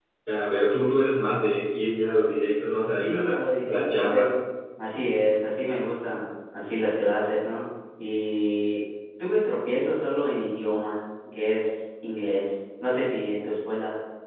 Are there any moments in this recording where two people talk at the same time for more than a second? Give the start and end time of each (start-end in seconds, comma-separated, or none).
3.0-4.3